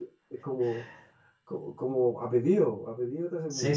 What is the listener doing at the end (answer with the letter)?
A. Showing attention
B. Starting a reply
B